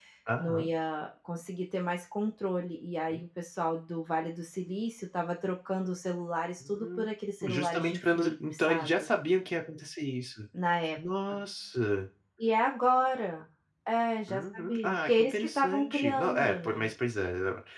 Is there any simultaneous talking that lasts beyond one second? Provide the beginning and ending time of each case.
7.5-9.1, 14.3-16.9

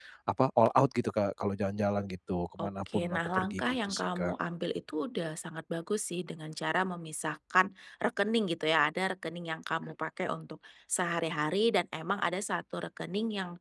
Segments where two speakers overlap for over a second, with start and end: 2.6-4.3

